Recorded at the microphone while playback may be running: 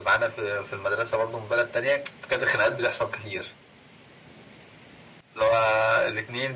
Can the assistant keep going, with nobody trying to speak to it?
Yes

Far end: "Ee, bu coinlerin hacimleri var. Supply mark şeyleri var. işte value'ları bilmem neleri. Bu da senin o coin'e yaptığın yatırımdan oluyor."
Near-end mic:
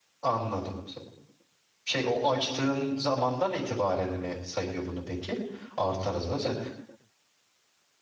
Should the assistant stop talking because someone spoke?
Yes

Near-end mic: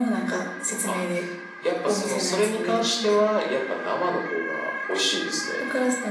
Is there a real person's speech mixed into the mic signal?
No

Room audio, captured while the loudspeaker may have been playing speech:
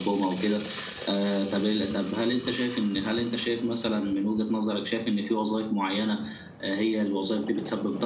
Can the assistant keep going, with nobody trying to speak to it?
Yes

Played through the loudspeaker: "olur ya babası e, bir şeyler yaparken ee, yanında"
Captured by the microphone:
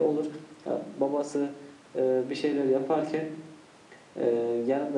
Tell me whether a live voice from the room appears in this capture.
No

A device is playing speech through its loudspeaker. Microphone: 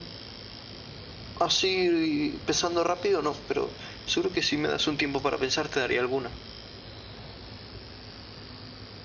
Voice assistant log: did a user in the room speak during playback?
Yes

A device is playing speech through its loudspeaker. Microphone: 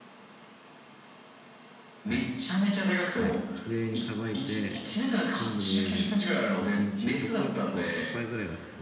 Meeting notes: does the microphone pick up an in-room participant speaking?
Yes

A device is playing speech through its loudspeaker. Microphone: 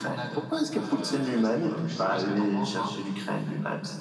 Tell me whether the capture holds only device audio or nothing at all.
Yes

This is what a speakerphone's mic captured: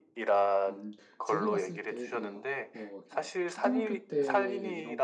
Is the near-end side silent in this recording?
No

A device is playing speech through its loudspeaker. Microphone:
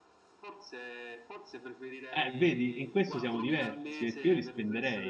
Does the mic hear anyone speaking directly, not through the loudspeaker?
Yes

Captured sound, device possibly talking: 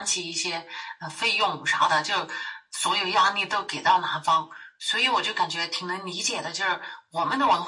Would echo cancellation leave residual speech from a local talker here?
No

